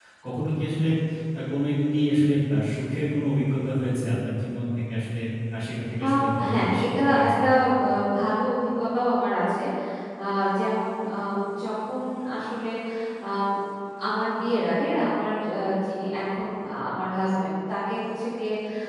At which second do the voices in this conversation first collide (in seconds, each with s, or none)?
6.0 s